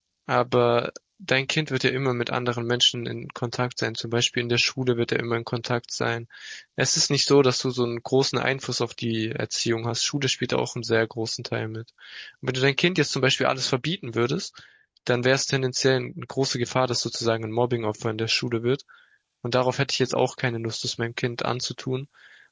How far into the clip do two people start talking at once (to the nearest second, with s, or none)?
none